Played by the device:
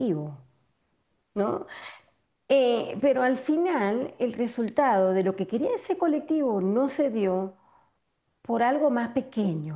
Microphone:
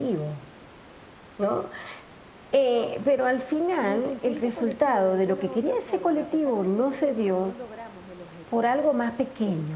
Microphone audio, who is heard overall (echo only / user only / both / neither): both